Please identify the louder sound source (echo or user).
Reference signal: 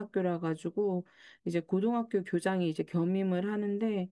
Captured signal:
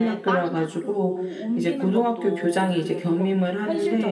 echo